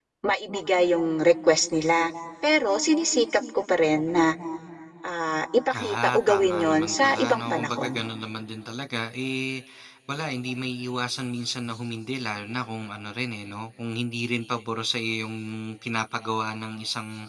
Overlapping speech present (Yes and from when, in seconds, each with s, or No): Yes, from 5.8 s